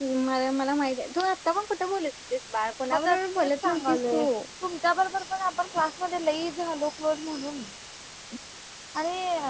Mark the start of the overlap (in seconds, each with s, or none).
2.9 s